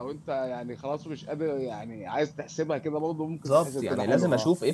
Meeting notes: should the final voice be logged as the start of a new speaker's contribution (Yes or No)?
Yes